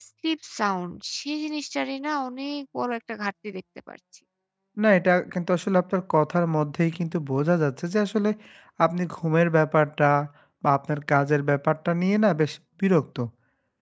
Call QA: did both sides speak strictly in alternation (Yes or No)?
Yes